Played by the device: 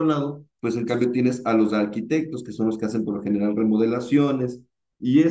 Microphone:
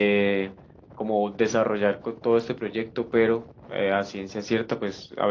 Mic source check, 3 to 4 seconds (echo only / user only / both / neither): user only